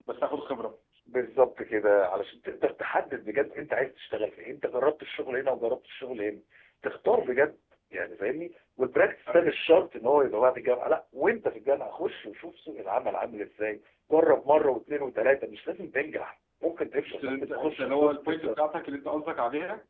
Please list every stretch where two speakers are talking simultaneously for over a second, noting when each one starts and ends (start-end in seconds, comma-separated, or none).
17.1-18.6